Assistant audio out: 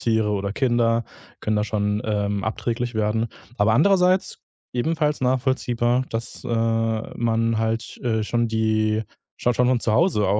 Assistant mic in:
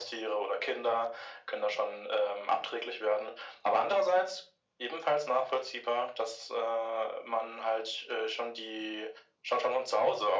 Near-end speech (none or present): none